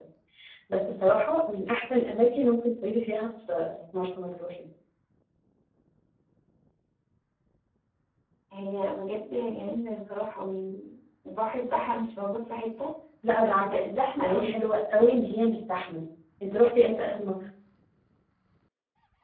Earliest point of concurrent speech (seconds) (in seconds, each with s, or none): 13.3 s